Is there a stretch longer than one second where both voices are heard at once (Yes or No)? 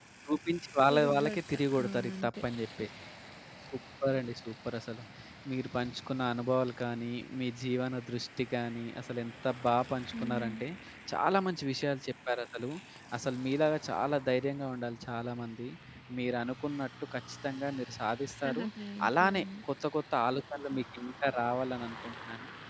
Yes